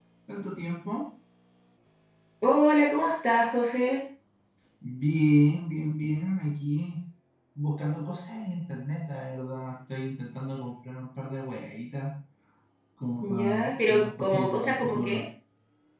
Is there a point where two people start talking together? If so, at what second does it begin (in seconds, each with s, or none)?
13.2 s